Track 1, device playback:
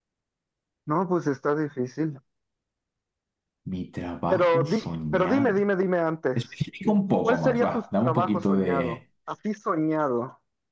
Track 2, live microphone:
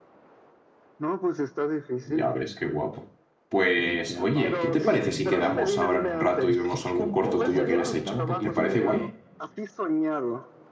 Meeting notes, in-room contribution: present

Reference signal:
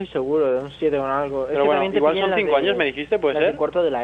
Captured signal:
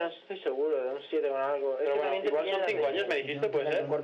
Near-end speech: present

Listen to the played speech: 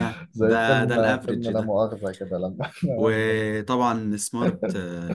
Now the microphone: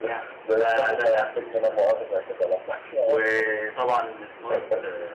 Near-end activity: none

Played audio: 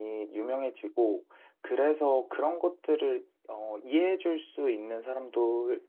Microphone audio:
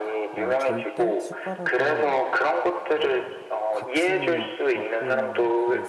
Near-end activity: present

